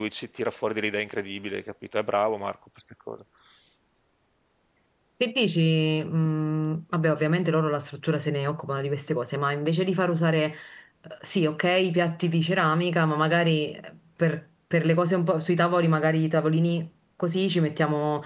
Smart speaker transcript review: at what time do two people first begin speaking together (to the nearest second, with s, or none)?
none